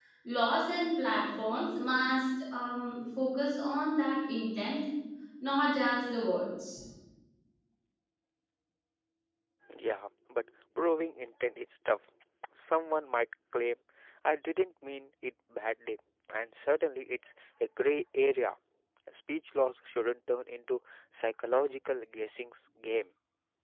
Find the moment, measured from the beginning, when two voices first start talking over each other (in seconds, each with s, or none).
none